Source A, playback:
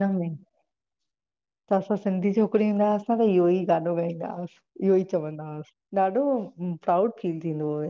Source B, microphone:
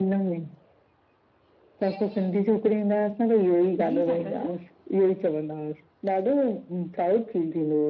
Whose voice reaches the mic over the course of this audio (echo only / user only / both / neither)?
both